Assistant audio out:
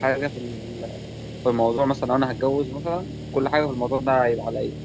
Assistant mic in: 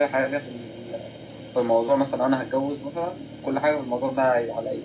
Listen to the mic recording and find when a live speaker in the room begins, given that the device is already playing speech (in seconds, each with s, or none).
none